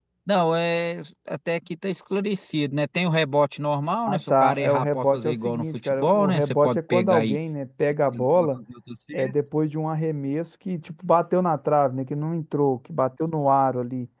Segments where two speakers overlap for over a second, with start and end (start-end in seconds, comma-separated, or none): 4.1-7.4